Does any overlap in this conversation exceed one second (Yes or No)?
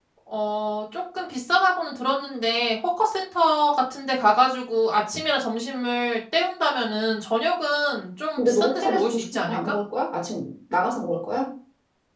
Yes